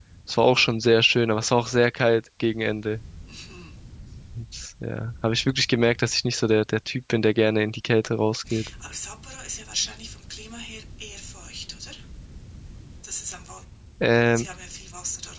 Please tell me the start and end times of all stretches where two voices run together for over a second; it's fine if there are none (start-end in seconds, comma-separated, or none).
none